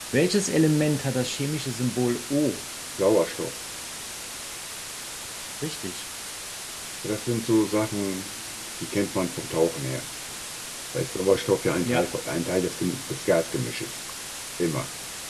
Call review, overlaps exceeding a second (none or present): none